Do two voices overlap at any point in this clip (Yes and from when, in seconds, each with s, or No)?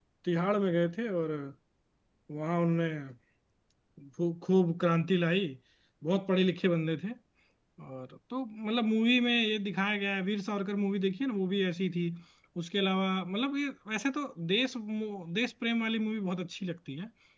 No